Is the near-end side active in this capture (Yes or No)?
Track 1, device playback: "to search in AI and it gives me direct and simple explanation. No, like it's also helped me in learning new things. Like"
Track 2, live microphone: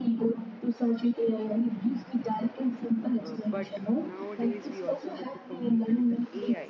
Yes